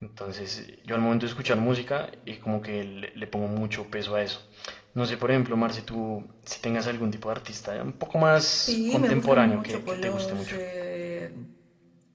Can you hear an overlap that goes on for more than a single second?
Yes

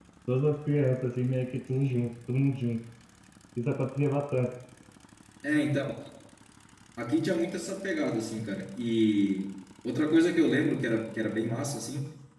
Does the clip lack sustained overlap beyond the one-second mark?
Yes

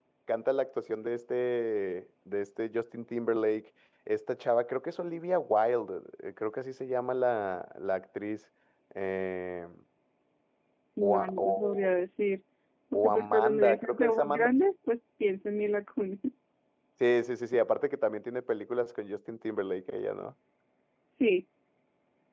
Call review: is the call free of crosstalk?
No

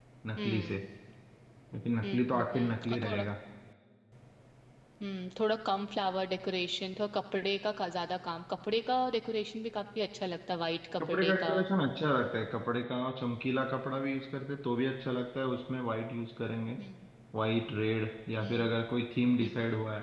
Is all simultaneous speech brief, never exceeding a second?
No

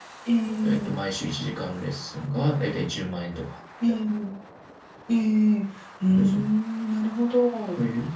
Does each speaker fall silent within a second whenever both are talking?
Yes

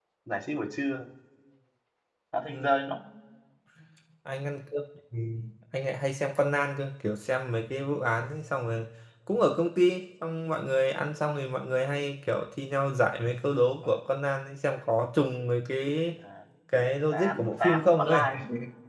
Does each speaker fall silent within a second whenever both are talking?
No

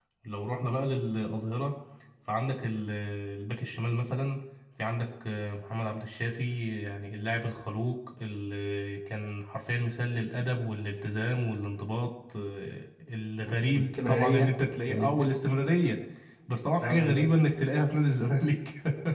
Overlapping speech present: Yes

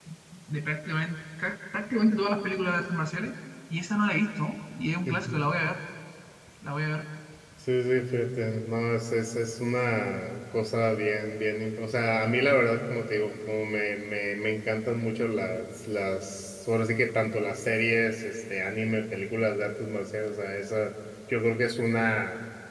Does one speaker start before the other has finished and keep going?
No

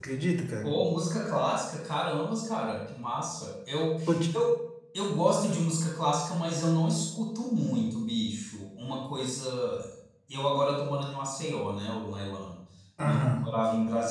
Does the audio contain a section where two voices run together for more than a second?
No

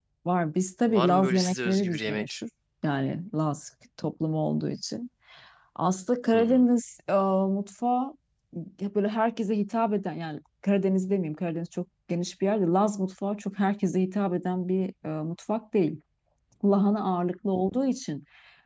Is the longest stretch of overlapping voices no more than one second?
No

